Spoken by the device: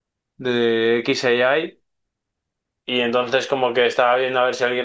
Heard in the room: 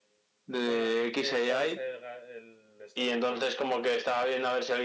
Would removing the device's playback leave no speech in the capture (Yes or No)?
No